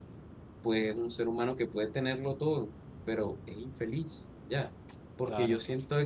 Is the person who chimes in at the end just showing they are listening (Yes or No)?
Yes